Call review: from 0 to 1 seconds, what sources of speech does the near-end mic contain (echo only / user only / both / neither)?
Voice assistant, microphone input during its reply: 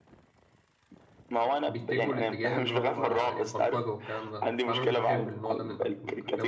neither